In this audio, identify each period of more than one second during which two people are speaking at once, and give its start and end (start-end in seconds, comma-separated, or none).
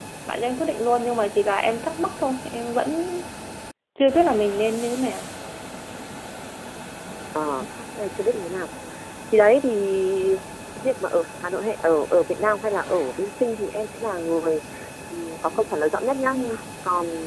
none